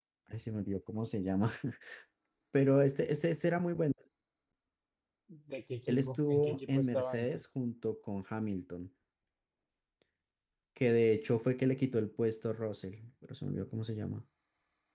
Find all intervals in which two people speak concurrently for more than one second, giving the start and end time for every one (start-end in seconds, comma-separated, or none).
5.9-7.3